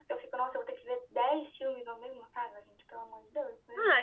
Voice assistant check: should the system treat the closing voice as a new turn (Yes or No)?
Yes